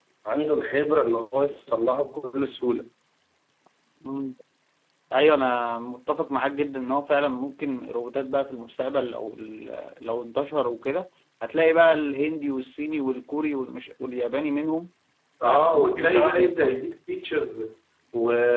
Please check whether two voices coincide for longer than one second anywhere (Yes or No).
Yes